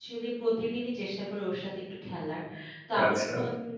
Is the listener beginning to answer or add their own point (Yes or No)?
No